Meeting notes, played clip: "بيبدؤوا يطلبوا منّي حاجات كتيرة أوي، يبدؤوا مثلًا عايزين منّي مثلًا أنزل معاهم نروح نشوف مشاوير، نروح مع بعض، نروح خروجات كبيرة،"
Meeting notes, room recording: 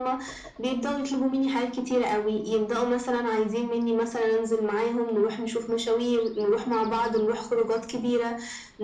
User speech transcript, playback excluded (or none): none